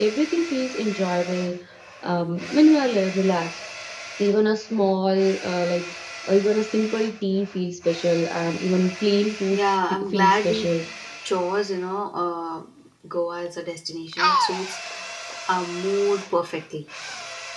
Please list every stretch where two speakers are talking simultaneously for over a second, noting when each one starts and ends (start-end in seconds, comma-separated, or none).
9.5-10.7